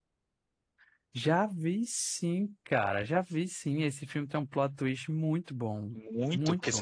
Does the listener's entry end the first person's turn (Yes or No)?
Yes